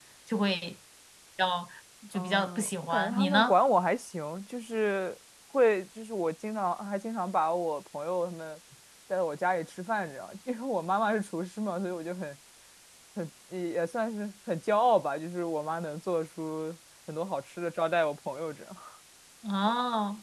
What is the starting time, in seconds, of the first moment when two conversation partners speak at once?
2.1 s

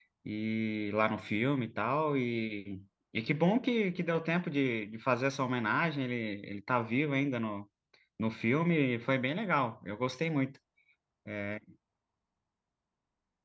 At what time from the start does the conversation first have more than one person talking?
none

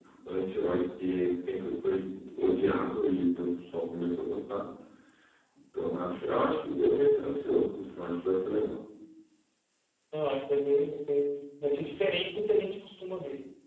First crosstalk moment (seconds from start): none

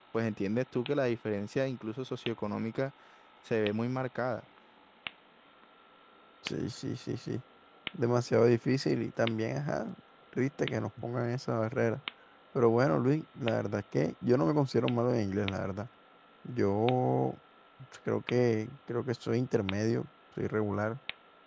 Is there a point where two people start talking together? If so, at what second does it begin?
none

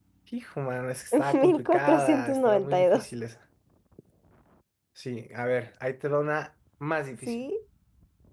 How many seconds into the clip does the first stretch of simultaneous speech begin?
1.3 s

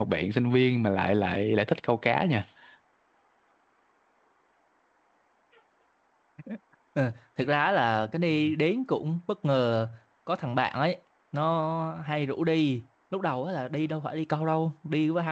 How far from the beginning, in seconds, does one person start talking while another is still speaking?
none

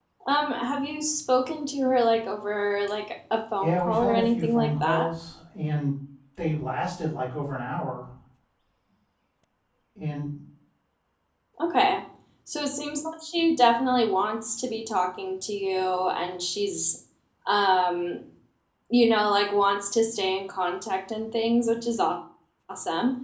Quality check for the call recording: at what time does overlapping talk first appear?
3.6 s

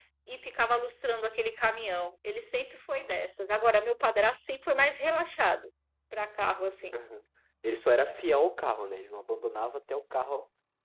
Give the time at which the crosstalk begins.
none

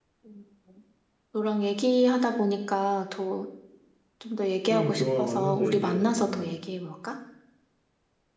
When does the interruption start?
4.7 s

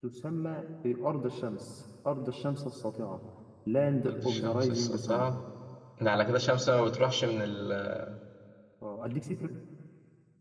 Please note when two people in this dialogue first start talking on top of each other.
4.1 s

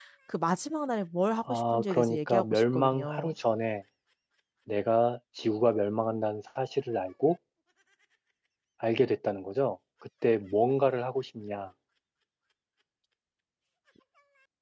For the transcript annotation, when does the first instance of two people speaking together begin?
1.5 s

